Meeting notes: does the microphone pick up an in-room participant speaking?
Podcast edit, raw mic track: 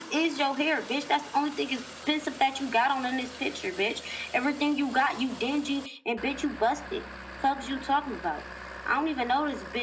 No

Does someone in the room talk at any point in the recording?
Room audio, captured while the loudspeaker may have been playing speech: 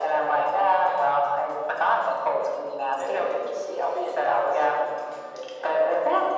No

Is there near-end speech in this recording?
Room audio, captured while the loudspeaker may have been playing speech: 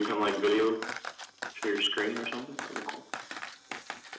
No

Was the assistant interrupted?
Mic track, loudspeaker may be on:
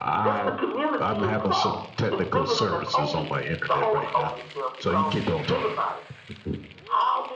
Yes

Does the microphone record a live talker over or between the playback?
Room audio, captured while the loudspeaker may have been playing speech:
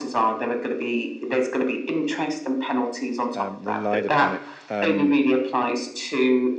Yes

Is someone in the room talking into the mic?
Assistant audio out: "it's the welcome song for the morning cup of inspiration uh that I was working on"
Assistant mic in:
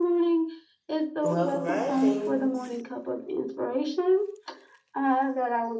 Yes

